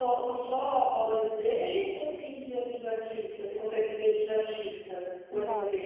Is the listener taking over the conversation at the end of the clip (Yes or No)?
Yes